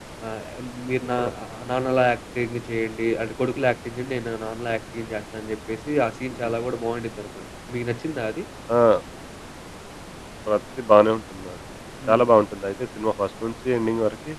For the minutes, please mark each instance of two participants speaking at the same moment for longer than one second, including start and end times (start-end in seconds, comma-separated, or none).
none